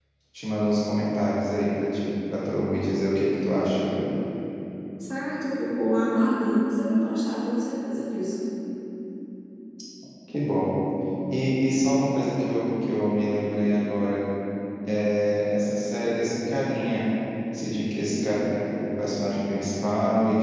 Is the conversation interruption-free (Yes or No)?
Yes